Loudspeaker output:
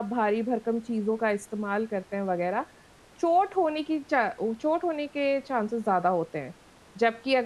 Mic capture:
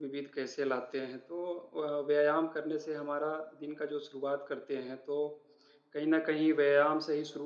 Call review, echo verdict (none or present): none